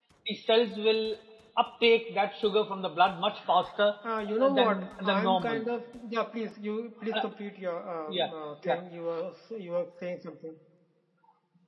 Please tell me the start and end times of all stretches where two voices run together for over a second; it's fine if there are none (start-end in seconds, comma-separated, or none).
4.4-5.7